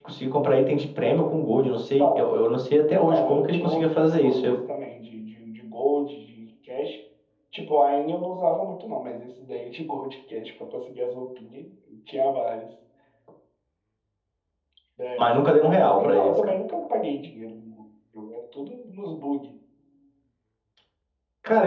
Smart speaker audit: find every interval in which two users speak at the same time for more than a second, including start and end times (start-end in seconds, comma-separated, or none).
2.9-4.6, 15.2-16.5